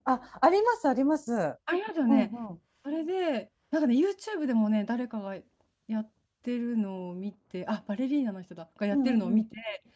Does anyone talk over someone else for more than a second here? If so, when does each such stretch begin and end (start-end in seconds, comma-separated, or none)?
none